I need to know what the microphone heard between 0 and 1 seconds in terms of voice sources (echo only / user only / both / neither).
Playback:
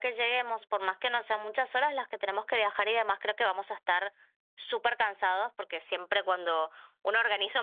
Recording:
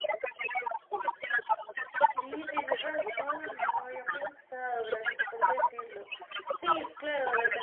echo only